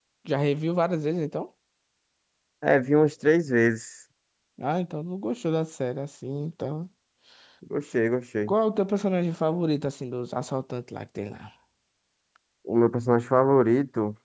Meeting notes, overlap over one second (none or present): none